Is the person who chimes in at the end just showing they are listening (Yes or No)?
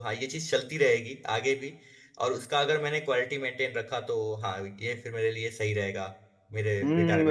No